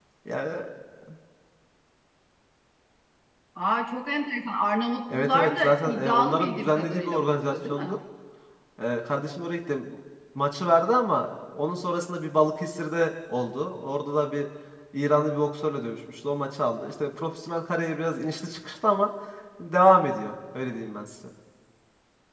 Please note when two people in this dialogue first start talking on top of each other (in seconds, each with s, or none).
5.1 s